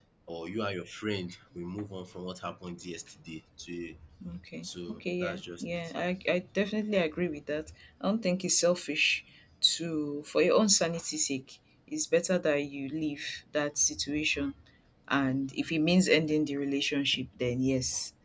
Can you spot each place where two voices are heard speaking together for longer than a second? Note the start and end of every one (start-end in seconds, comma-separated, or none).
4.6-5.9